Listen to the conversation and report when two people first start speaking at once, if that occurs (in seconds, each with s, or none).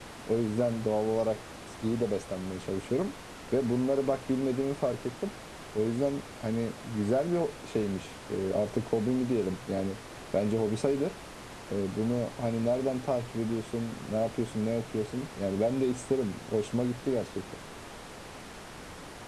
none